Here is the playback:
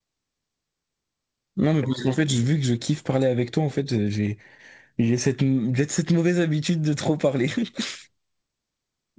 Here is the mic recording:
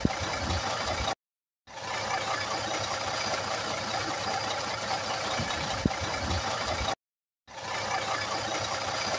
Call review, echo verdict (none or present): none